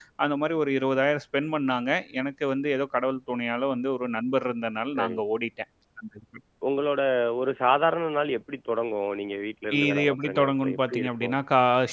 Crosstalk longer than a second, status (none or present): present